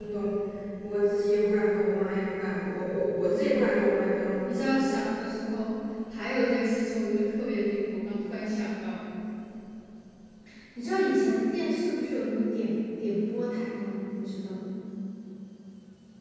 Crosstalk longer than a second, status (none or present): none